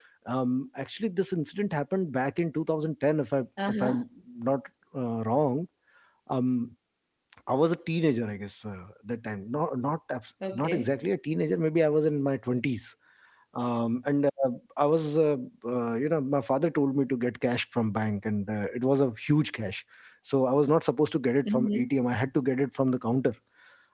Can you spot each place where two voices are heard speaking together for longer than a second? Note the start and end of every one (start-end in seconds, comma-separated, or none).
none